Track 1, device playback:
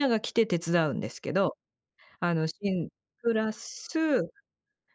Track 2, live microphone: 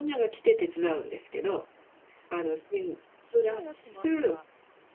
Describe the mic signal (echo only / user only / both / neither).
both